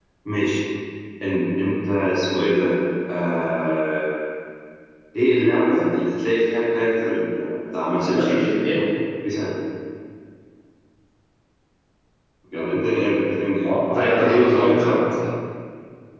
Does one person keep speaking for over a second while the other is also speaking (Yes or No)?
Yes